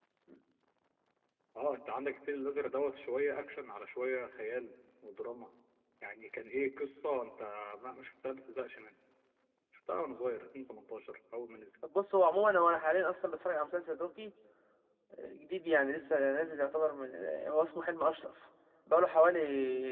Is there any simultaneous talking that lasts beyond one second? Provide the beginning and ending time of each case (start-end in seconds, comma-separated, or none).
none